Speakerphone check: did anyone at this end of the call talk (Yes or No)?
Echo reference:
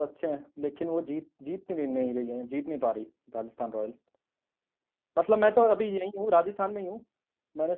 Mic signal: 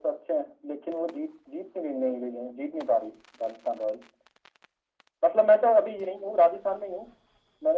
No